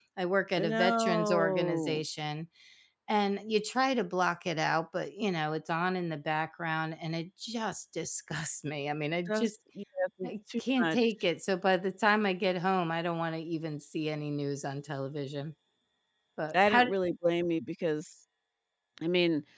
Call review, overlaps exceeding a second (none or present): present